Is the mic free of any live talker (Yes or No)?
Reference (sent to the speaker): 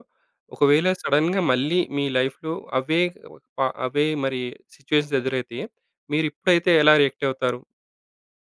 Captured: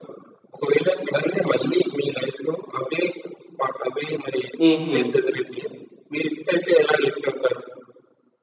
No